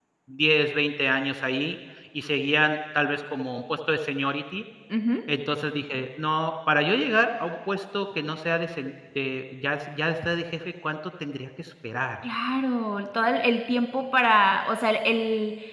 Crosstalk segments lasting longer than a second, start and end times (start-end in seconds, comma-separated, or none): none